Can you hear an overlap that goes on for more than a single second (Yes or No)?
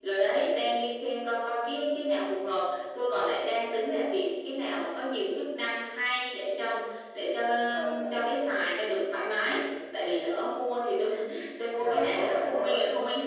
Yes